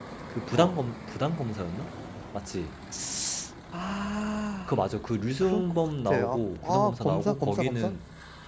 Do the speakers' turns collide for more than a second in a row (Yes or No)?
Yes